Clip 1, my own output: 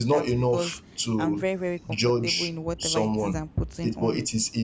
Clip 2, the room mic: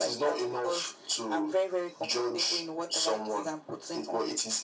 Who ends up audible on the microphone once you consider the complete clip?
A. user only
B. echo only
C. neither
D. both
B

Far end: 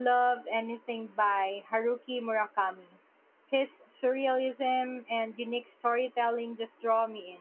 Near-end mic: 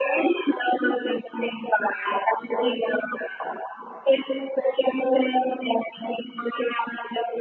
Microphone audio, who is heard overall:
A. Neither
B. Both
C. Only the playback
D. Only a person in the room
C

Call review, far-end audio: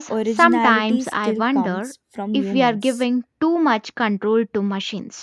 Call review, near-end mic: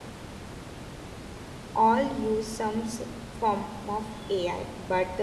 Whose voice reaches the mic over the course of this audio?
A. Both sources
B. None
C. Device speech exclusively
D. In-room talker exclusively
D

